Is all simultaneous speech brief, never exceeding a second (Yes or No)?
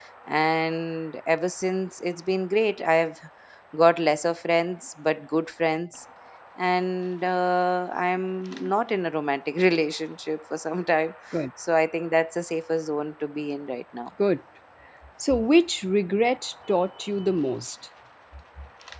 Yes